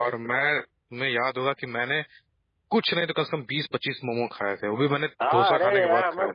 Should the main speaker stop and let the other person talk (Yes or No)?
Yes